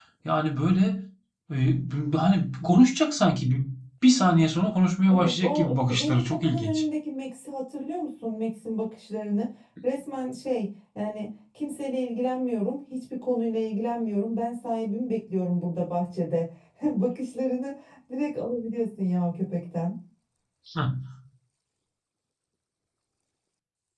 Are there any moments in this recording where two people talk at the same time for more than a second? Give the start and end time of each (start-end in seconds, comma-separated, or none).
5.1-6.8